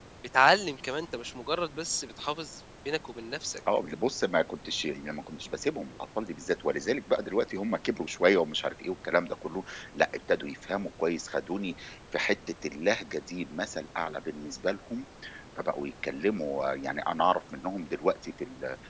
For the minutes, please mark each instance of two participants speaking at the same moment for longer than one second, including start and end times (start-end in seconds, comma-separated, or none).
none